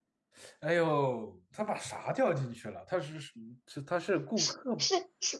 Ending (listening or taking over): taking over